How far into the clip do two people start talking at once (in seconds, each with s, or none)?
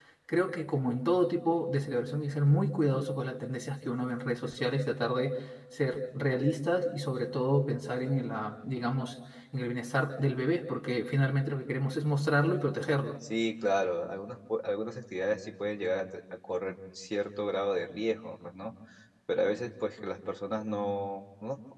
none